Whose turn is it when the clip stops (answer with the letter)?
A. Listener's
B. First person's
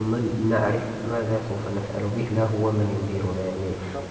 B